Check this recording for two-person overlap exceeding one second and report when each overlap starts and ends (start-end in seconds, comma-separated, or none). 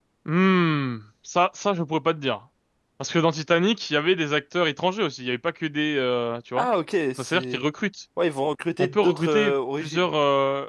8.8-10.1